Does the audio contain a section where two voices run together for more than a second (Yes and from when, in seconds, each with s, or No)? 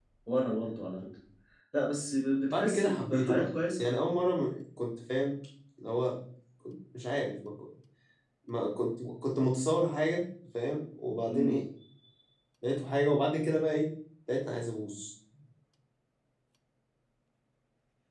Yes, from 2.5 s